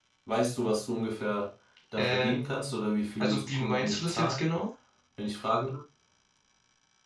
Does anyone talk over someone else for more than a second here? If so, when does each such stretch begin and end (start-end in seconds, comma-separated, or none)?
3.2-4.4